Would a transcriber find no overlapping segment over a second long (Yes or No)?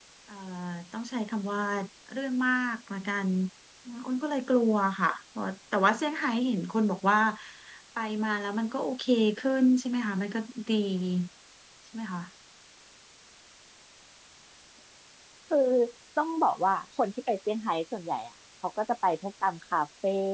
Yes